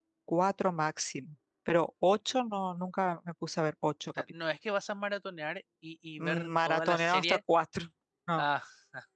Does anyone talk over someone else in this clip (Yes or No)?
Yes